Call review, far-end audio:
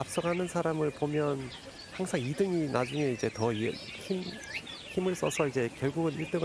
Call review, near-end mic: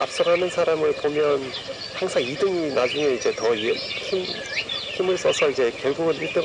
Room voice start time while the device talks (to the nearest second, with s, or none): none